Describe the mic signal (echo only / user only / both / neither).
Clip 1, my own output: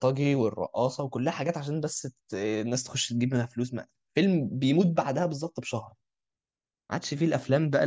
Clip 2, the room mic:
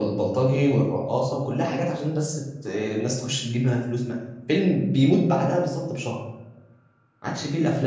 echo only